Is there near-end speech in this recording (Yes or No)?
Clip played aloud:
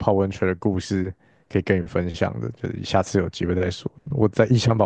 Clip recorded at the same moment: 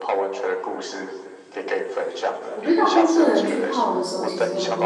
Yes